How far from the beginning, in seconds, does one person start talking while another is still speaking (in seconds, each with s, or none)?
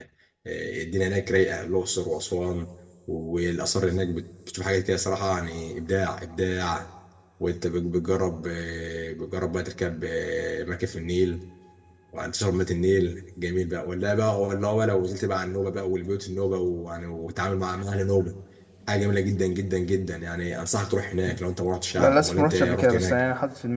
22.0 s